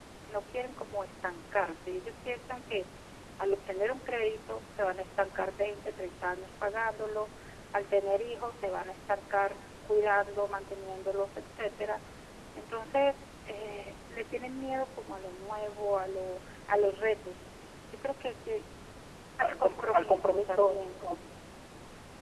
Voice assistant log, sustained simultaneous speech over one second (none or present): present